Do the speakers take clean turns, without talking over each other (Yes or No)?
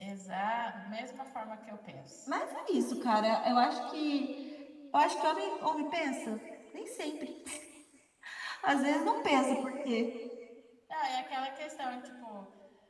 Yes